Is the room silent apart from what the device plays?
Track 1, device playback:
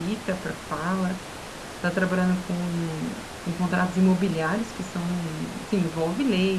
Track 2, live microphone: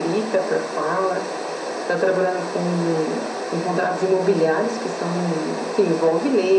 Yes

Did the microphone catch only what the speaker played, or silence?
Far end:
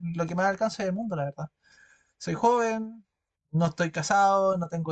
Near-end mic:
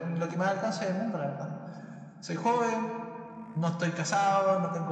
Yes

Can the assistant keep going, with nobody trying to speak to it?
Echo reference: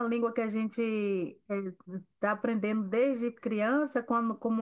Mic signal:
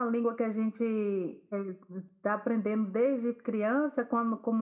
Yes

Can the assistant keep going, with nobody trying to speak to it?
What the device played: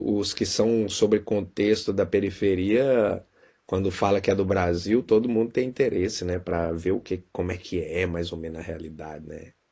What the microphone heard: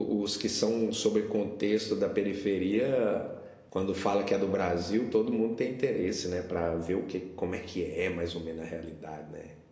Yes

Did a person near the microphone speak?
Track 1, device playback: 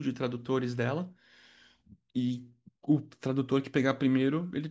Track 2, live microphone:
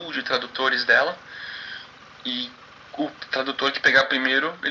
No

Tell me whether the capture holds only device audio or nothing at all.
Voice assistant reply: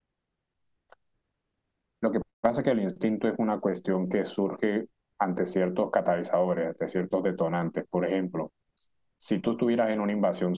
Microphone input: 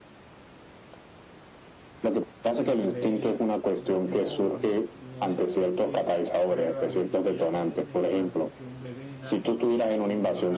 No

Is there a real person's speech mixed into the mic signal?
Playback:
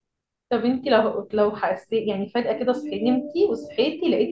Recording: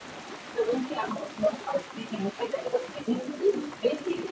No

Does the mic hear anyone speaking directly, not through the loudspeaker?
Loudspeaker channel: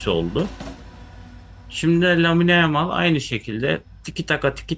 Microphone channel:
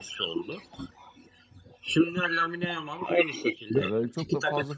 Yes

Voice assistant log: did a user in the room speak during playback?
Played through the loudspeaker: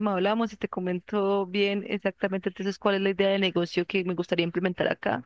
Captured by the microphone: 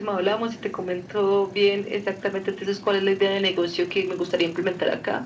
No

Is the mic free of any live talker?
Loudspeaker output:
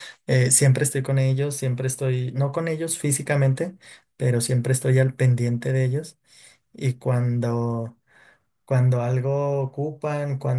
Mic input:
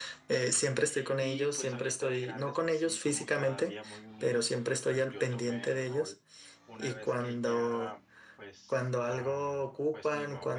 No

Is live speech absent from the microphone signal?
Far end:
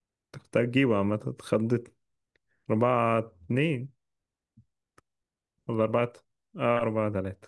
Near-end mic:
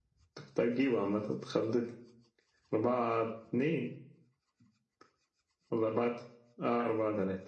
Yes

